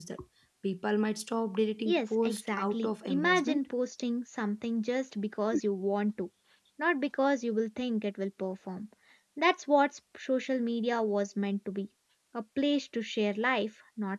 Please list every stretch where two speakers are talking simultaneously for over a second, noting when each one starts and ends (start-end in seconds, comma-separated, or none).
1.9-3.6